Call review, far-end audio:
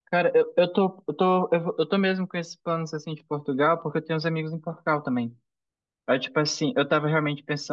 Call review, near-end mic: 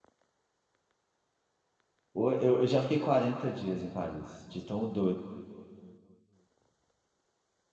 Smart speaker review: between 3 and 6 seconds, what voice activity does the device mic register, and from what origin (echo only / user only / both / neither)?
user only